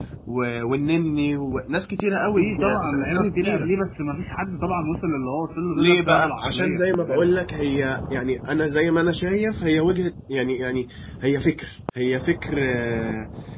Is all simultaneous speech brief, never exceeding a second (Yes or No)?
No